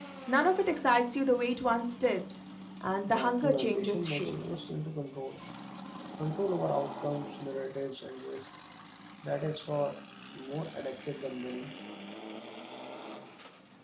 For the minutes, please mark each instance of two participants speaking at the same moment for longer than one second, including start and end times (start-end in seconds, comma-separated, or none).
3.1-4.3